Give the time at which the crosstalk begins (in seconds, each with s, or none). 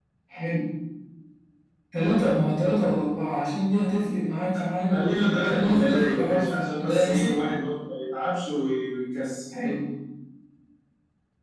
4.9 s